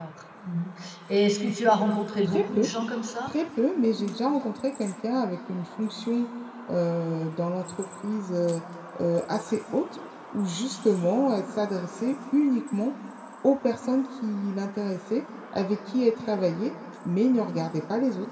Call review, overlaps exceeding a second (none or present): none